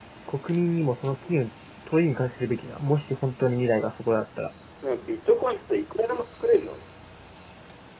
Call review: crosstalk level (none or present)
none